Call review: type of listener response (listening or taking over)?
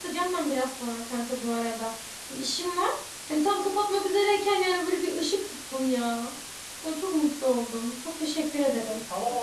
taking over